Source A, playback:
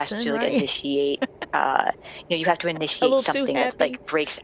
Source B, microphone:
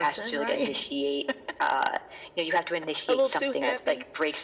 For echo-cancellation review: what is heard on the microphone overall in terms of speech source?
echo only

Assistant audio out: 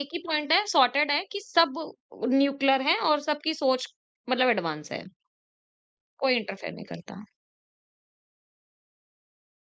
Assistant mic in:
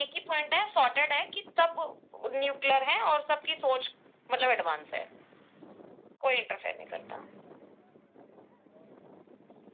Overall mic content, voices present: echo only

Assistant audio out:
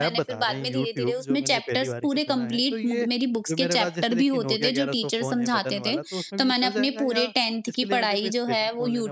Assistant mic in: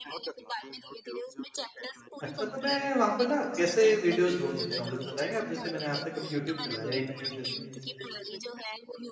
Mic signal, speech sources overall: both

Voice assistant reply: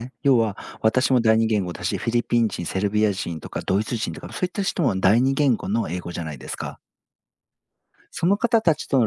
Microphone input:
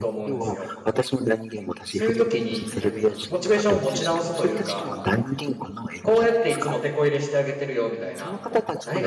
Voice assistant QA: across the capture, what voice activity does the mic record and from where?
both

